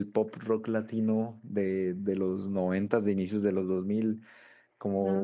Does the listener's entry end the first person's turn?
No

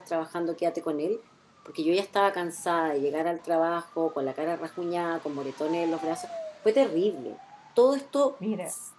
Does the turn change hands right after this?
No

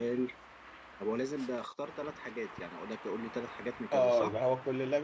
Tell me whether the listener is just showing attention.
No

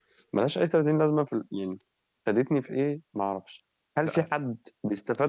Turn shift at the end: No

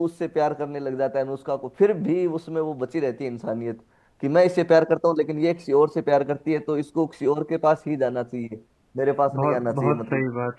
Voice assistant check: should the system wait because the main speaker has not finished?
No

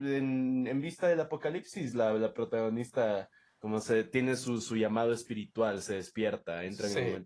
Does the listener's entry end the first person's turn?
No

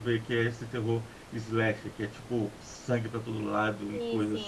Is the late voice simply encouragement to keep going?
Yes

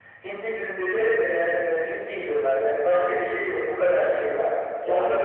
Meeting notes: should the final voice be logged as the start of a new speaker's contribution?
No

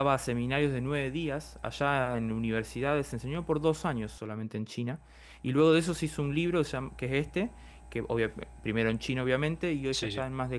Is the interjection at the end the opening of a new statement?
No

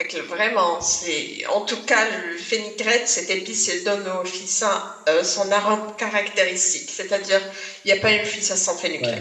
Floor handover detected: Yes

